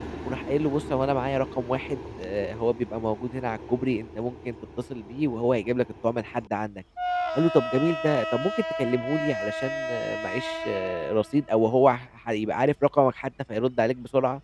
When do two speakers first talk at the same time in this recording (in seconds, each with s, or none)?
none